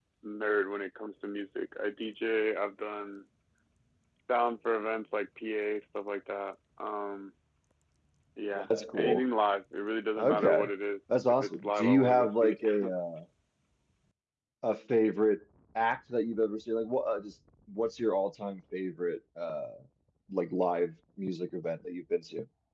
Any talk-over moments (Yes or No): Yes